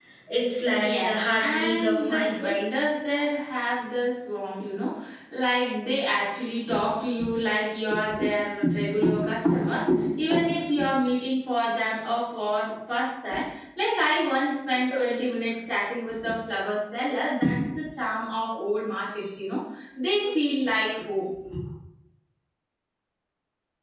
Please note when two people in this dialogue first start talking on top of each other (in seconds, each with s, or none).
0.8 s